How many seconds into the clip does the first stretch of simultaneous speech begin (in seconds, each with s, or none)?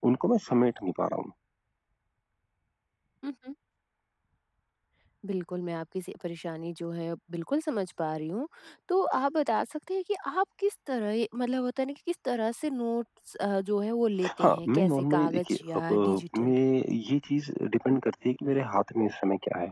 14.2 s